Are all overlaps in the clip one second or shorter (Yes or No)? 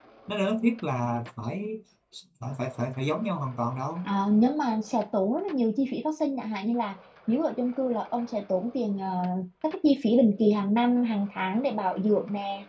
Yes